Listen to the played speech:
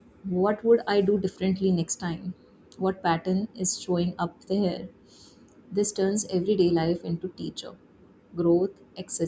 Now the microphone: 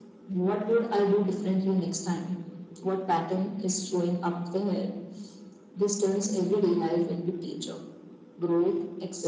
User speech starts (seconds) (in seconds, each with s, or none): none